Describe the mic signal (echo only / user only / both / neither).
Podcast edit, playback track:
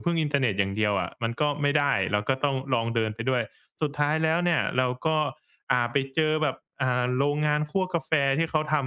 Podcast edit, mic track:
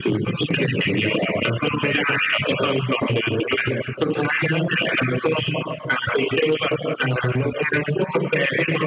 echo only